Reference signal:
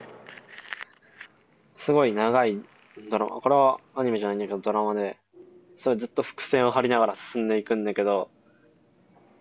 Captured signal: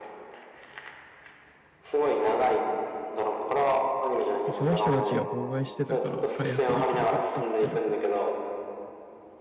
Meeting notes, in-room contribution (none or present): present